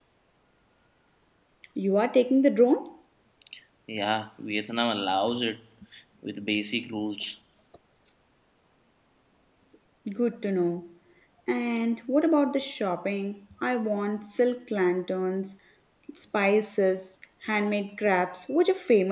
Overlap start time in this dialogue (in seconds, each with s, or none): none